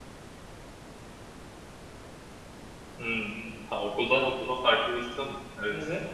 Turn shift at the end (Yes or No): Yes